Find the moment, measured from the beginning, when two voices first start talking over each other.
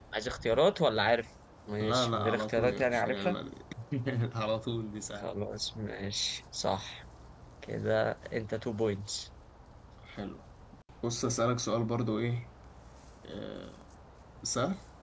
1.8 s

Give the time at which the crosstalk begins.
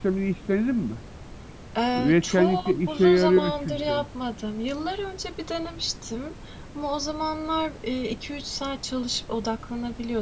1.9 s

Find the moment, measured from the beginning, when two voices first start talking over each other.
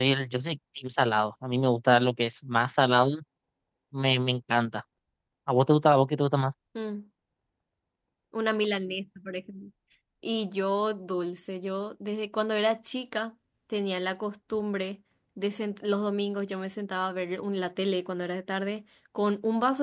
none

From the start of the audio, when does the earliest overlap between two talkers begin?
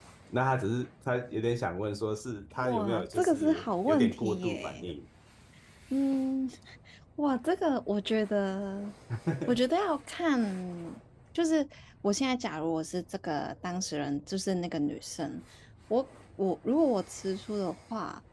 2.6 s

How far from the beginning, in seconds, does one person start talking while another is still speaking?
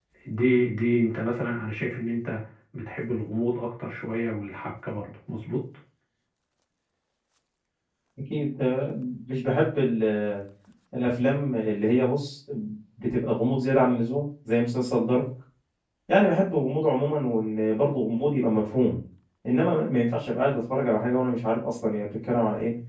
none

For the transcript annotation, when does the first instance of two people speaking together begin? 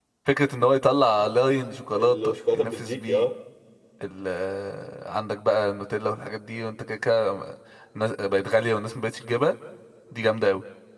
2.0 s

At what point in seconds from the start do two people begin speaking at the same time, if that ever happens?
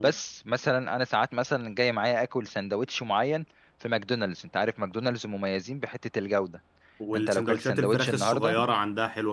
7.2 s

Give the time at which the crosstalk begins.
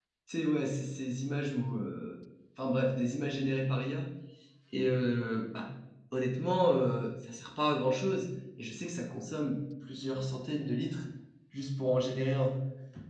none

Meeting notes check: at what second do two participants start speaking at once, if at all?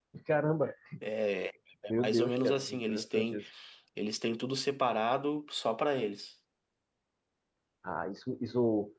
1.9 s

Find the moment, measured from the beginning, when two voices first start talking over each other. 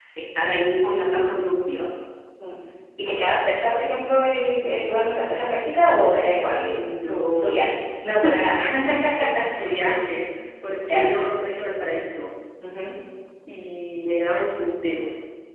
6.6 s

